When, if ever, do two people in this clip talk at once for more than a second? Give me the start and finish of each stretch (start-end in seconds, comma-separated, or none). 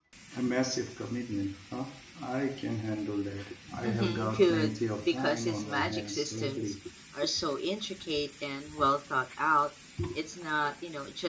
3.8-6.7